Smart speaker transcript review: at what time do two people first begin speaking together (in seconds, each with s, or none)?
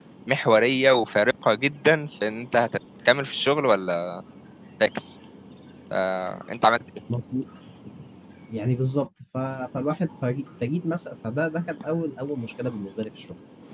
none